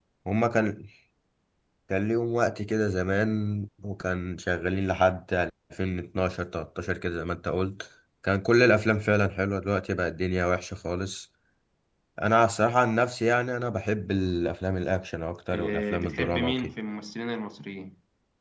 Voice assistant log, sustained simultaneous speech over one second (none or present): present